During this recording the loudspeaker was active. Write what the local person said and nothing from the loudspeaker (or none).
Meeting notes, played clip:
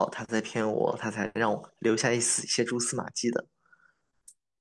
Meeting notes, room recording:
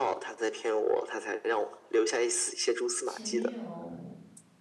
前女友，